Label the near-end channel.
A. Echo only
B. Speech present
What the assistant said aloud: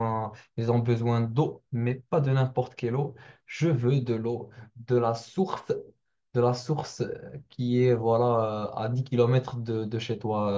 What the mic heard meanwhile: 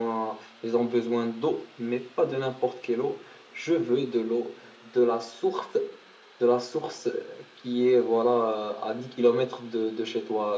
A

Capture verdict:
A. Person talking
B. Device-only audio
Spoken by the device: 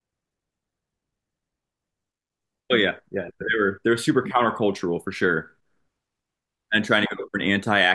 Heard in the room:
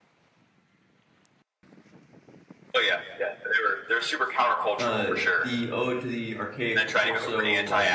A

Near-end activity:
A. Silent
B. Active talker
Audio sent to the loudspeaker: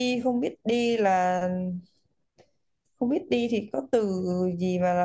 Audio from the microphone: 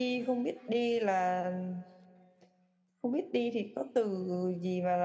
A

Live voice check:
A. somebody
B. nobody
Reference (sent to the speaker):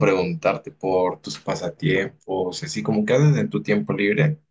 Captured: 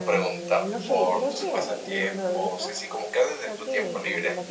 A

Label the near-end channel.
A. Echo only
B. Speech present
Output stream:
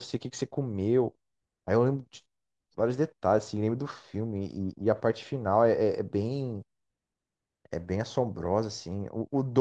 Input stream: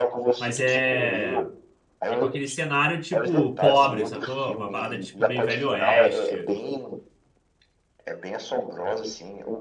B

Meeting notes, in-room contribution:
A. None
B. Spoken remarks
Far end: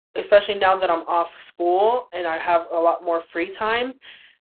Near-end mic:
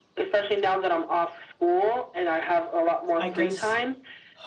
B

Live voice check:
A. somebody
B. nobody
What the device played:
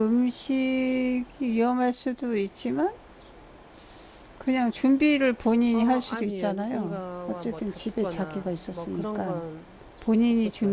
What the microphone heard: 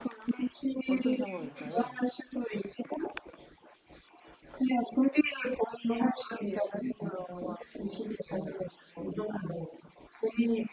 A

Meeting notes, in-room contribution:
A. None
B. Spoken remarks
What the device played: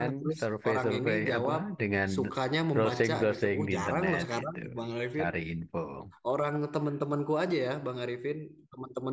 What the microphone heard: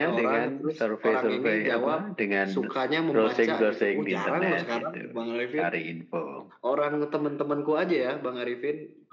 A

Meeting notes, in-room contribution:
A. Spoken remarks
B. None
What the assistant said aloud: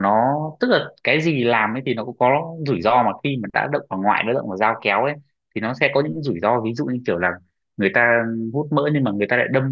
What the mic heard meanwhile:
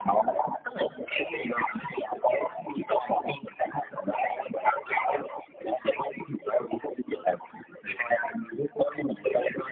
B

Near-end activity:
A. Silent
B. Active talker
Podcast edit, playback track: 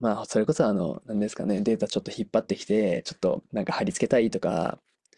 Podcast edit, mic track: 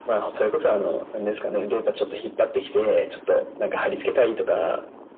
A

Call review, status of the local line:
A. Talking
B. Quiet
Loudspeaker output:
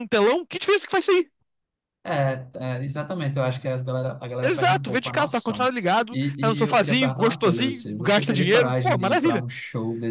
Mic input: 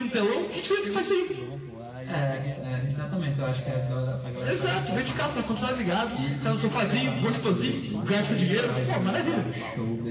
A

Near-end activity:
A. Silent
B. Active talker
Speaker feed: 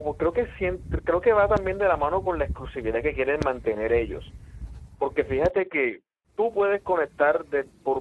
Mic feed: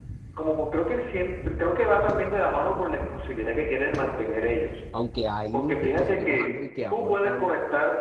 B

